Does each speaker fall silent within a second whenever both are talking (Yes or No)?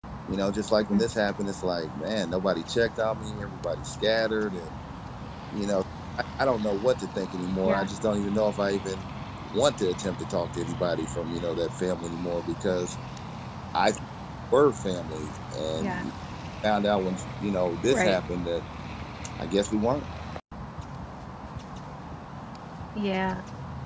Yes